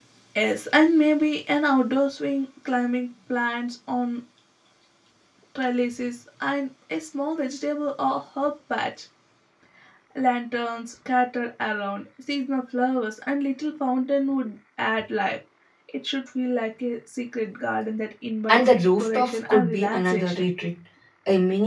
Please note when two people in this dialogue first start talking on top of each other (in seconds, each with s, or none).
18.5 s